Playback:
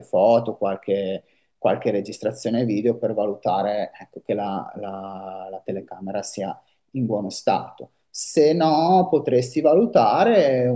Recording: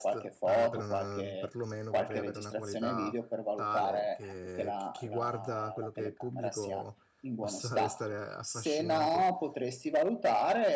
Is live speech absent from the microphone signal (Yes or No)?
No